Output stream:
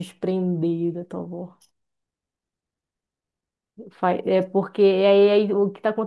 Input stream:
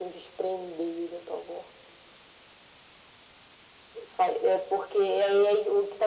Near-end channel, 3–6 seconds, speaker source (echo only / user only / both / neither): echo only